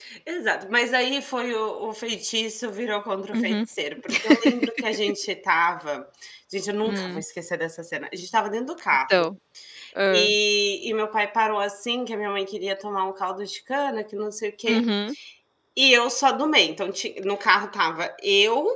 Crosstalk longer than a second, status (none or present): none